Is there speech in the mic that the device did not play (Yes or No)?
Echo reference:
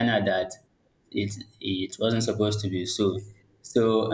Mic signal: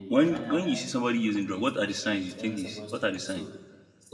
Yes